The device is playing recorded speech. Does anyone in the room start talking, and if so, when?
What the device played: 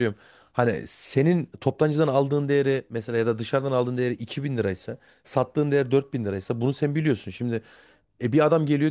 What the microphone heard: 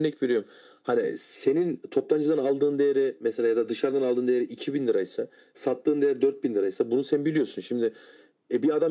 none

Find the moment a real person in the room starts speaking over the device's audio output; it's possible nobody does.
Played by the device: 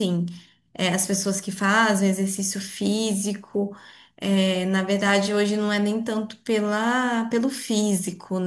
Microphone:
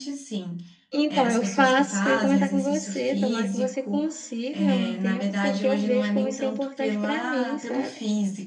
1.0 s

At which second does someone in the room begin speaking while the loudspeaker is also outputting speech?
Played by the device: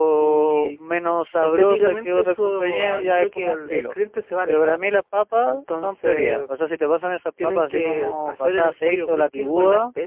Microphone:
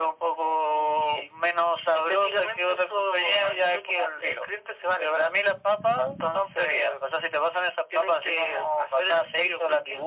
none

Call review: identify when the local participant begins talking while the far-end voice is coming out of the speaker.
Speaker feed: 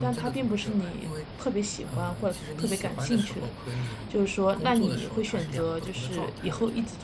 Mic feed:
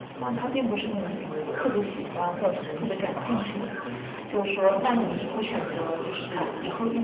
1.3 s

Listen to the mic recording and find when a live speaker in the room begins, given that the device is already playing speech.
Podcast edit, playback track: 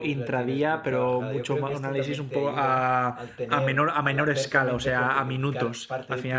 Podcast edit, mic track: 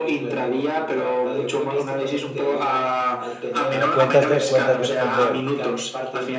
3.7 s

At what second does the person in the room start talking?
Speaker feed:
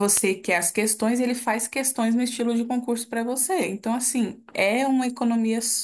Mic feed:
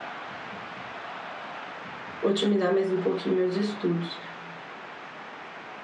2.2 s

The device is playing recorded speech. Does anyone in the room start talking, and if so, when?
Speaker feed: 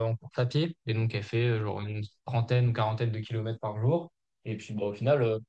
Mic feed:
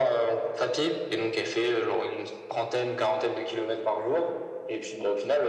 none

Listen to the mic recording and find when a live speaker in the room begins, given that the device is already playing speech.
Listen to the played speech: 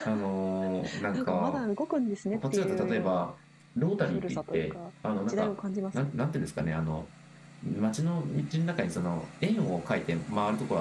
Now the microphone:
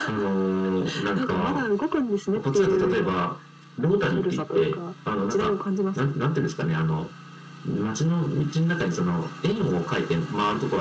none

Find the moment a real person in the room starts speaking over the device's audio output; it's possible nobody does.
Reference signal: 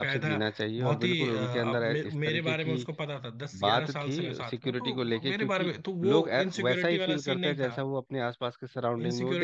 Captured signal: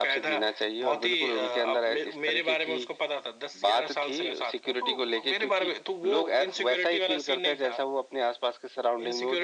none

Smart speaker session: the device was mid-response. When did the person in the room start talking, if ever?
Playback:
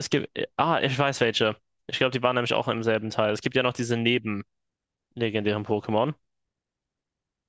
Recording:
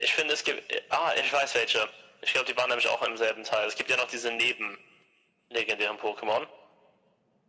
none

